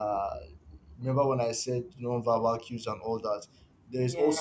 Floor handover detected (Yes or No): No